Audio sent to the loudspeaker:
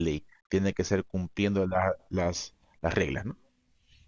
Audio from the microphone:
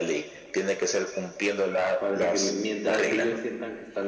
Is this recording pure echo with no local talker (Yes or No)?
No